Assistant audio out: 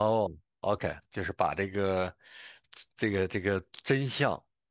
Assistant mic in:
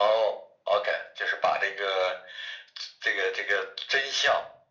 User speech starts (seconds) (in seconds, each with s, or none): none